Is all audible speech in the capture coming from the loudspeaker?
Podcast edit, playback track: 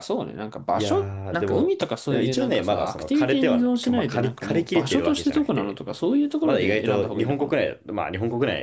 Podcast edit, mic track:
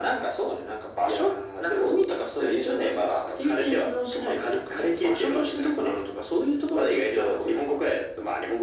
Yes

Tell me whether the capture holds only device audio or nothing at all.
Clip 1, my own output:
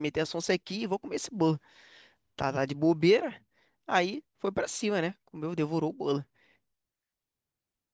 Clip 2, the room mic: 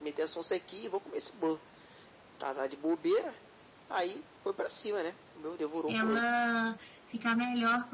No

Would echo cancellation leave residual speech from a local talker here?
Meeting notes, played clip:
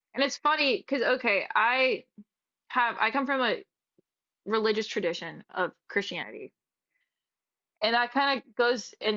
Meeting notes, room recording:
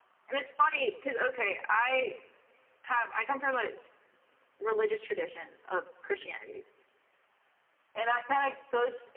No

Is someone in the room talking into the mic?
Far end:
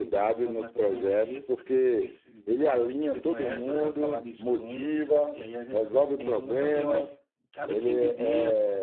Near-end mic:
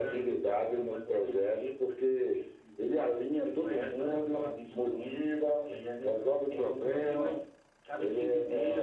No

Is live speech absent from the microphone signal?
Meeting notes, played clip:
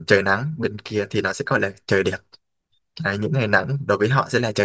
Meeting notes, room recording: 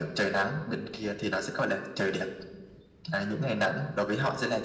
Yes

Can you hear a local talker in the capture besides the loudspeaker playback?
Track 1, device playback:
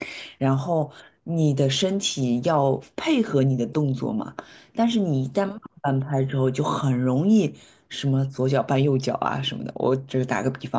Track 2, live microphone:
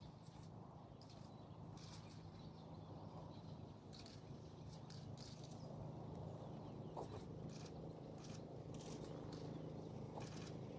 No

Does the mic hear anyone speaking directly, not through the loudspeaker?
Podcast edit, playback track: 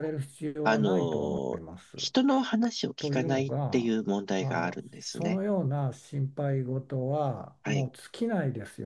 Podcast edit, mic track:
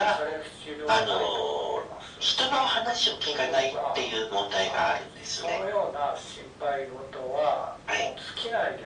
No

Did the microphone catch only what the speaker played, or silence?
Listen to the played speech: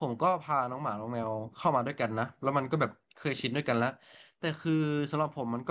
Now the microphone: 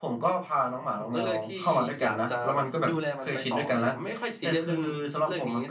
No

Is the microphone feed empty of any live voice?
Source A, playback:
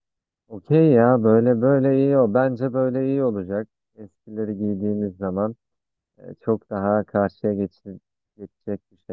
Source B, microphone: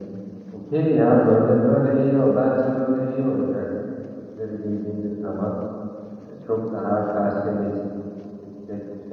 Yes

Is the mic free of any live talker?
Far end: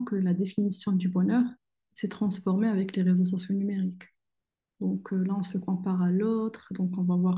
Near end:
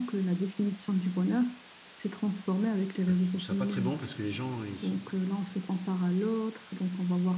No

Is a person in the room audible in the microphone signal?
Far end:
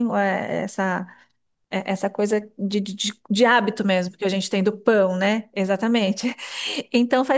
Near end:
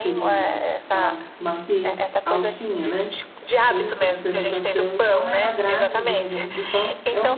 Yes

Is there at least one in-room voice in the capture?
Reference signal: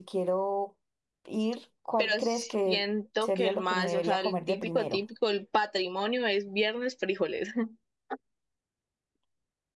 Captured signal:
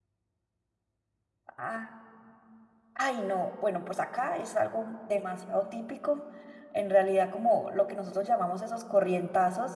Yes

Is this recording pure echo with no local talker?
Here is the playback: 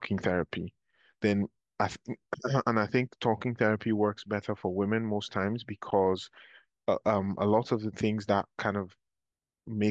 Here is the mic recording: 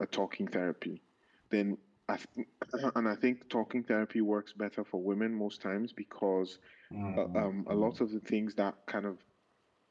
No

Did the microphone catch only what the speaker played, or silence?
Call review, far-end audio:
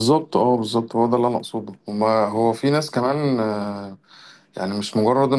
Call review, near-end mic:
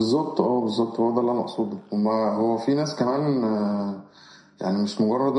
Yes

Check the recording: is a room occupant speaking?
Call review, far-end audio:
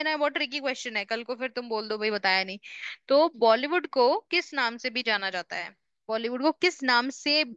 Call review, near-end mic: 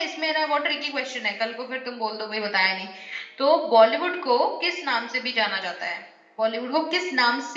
No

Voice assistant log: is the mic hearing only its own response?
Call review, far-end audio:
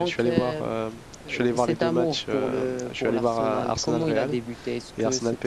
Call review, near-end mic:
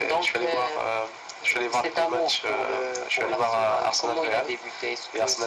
Yes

